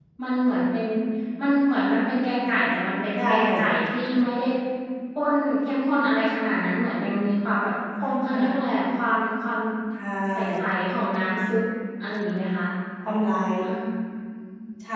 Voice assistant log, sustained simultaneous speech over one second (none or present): none